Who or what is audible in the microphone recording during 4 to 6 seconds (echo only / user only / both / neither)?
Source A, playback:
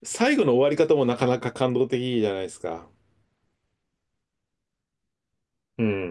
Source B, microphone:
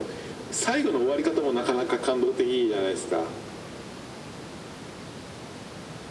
neither